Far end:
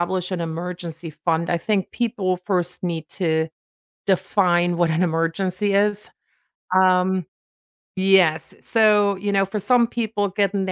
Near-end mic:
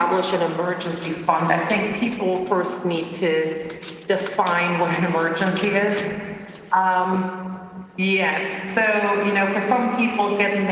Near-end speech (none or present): none